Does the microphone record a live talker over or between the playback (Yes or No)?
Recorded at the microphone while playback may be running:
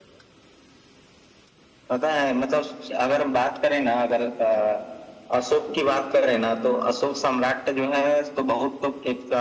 No